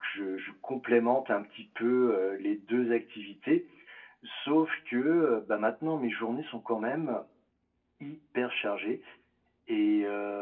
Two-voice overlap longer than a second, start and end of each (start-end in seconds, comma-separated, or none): none